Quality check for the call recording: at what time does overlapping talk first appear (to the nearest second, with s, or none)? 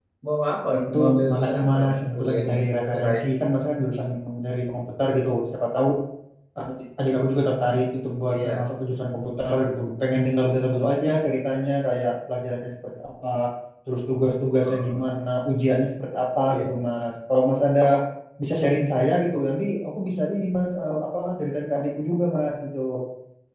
1 s